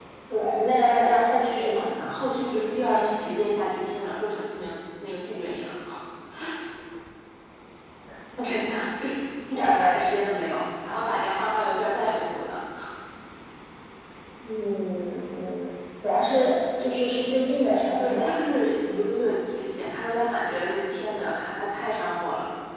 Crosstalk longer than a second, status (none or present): none